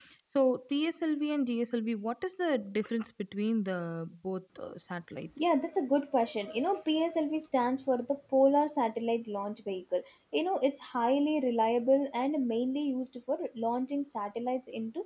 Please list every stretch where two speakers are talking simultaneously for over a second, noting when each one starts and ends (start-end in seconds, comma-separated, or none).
none